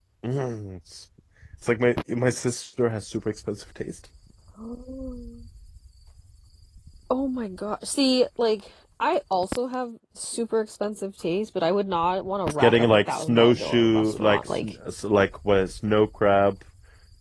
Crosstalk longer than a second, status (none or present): present